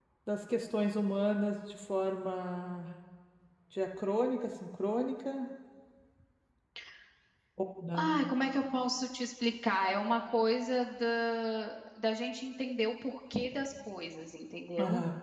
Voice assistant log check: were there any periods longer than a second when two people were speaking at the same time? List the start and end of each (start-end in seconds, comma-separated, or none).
none